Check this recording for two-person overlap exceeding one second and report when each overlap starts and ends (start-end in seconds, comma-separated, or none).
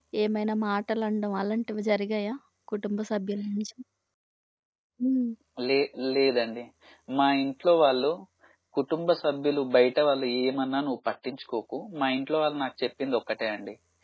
none